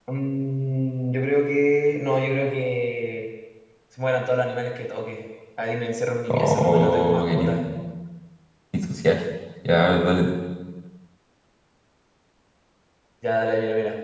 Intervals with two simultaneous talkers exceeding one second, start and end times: 6.3-7.6

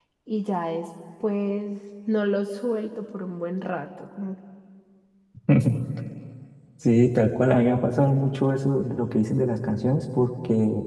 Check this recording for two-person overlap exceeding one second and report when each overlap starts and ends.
none

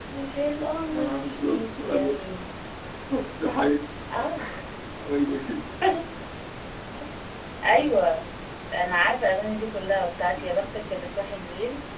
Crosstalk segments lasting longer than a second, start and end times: 0.9-2.1

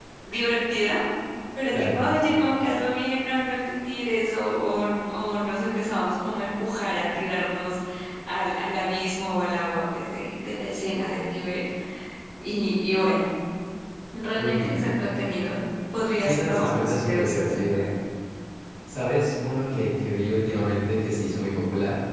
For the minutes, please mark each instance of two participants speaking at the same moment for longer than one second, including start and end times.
16.2-17.8

